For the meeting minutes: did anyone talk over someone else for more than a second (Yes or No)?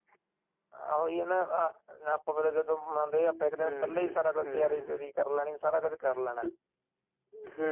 Yes